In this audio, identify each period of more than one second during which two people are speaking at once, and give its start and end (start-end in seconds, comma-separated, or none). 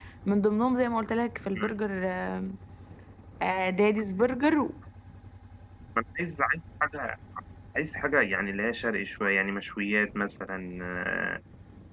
none